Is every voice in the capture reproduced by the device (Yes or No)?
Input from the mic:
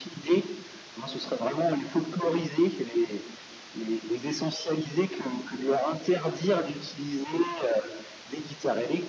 Yes